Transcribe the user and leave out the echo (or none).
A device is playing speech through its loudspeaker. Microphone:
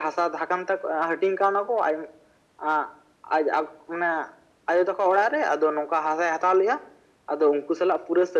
none